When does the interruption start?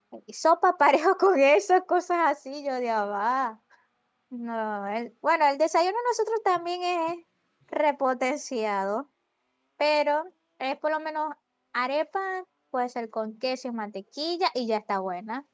none

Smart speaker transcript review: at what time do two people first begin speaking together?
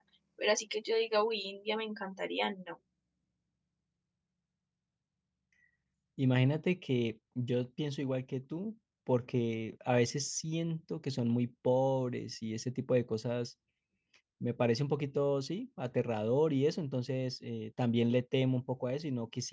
none

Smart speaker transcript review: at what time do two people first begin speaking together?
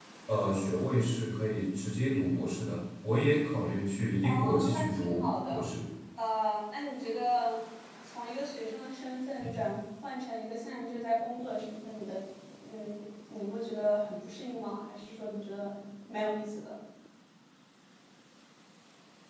4 s

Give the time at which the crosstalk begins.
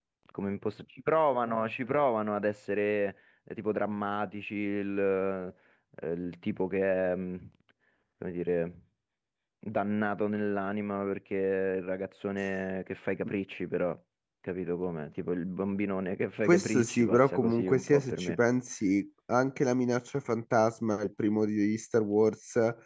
16 s

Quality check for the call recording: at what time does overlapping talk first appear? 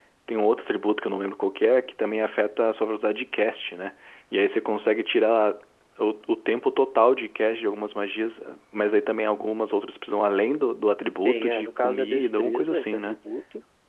11 s

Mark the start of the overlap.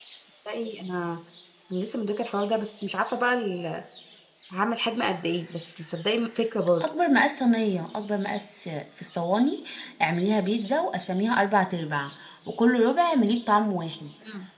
none

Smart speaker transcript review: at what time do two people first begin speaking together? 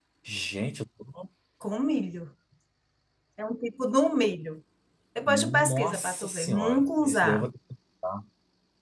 5 s

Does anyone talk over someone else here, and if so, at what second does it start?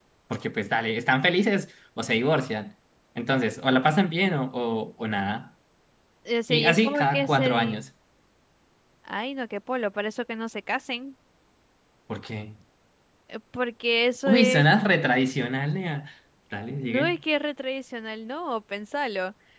6 s

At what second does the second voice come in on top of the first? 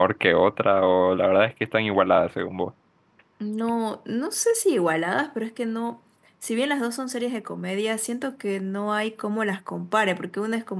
none

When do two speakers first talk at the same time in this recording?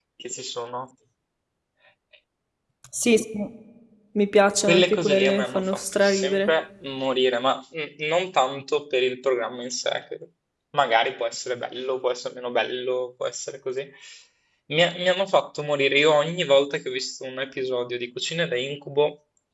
5 s

